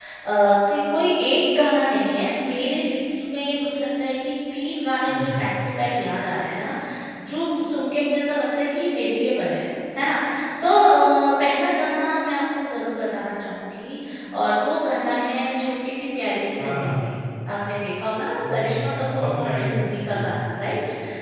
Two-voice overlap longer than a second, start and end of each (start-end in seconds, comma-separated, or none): 18.5-20.4